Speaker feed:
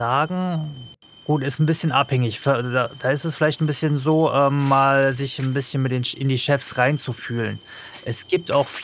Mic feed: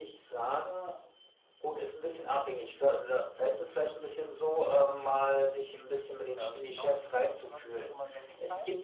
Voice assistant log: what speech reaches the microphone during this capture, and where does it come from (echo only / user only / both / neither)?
both